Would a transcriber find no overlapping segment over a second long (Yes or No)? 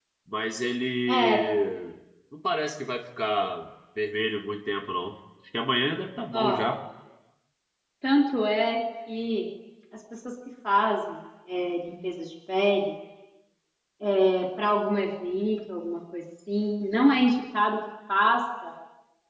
Yes